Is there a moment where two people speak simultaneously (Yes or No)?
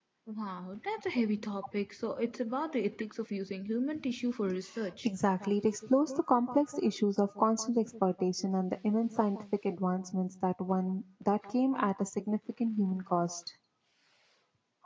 No